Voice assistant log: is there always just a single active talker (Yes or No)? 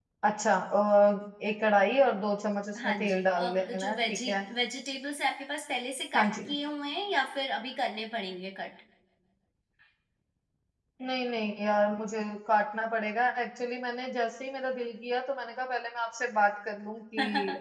No